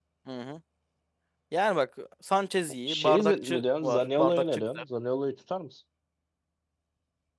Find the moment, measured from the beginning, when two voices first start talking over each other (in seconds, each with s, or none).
2.9 s